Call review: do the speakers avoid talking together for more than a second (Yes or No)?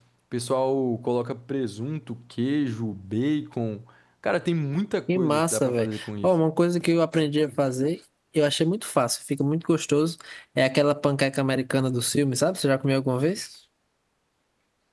No